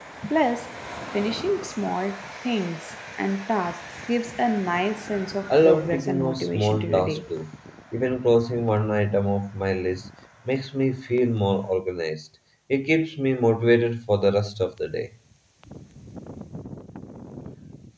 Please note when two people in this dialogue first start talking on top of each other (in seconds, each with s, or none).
5.5 s